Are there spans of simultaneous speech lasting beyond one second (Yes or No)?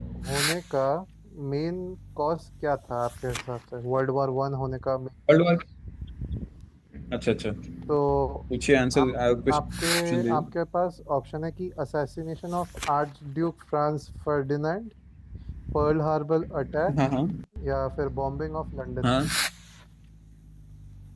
No